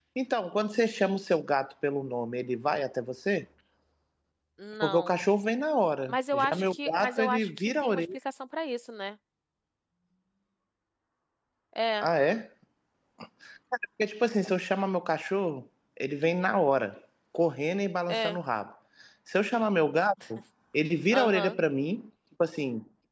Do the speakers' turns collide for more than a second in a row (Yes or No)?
Yes